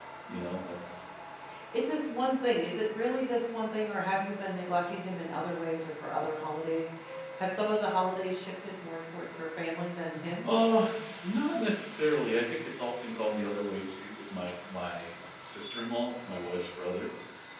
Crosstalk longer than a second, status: none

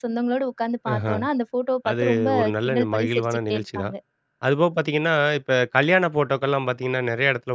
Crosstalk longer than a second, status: present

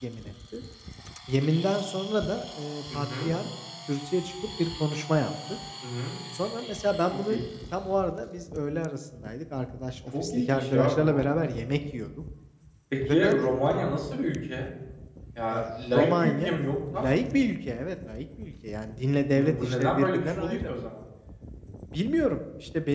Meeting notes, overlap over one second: present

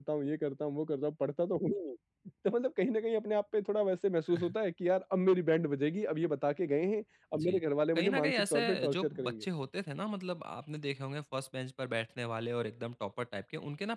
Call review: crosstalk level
present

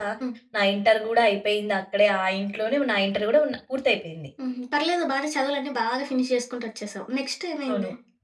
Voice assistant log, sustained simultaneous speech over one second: none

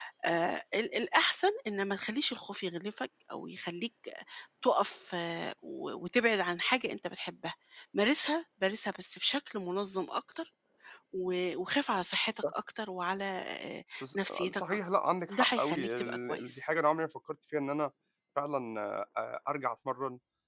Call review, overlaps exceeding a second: present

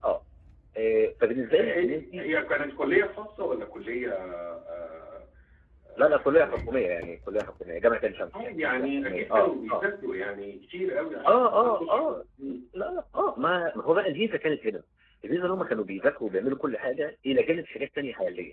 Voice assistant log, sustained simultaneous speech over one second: present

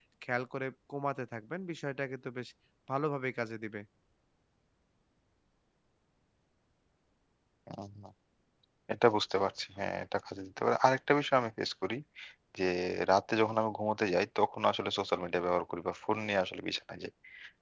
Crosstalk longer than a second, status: none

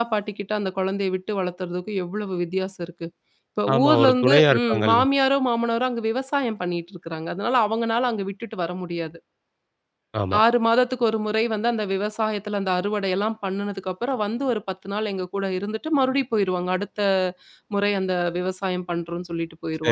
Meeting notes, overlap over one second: present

